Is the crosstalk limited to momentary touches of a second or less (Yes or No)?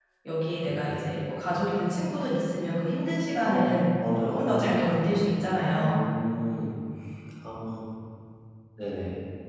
No